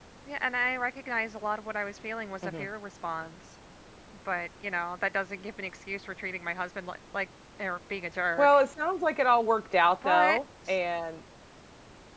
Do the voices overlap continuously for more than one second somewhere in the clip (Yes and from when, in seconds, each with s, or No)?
No